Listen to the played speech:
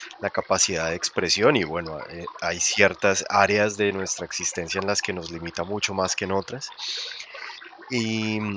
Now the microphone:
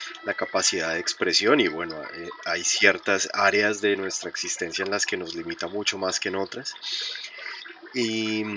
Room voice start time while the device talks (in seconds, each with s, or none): none